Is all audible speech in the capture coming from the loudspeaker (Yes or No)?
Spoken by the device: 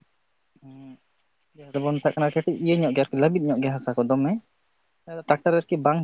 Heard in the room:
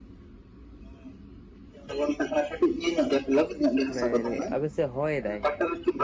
No